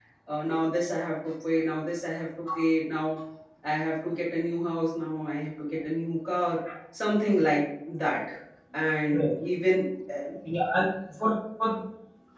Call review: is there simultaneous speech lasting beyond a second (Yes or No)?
No